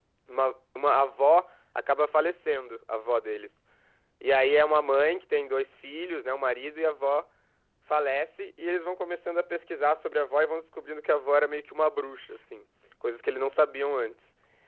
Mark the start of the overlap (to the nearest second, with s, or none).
none